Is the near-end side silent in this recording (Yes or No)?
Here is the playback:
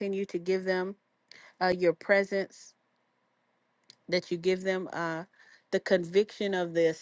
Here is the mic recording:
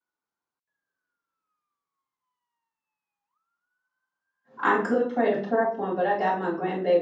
No